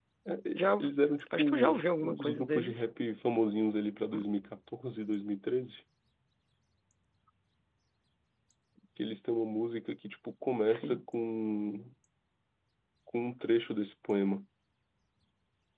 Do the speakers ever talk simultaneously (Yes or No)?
Yes